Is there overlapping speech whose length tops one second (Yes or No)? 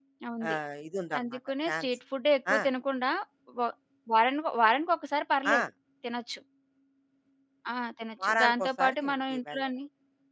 Yes